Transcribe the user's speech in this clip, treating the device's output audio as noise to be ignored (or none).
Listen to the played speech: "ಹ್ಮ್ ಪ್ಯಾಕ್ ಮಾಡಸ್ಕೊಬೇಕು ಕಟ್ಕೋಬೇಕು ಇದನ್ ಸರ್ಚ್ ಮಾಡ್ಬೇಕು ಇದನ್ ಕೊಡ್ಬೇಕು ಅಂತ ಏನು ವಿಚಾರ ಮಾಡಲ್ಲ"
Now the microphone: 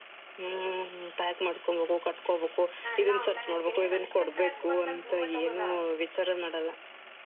ನಾ ಎಲ್ಲಾ ಆನ್ಲೈನ್ ಹಾಕೀನಿ ನನ್ಕಿಂತ ಎತ್ ಮತ್ ನನ್ ರೂಮ್ಟ್ಟ ಒಬಳುದ